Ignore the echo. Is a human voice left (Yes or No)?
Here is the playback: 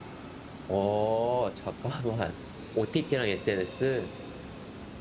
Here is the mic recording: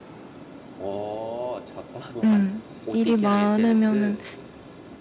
Yes